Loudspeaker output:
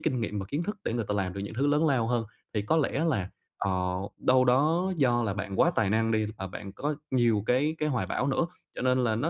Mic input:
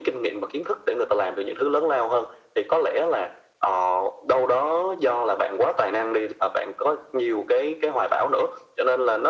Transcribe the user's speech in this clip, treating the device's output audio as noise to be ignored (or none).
none